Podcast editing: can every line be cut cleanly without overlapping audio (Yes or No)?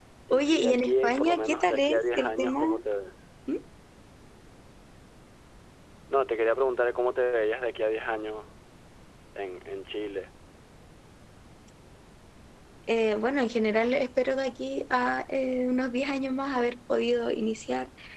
No